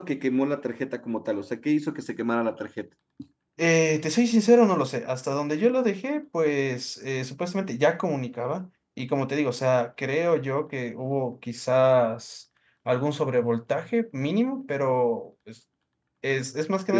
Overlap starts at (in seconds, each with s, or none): none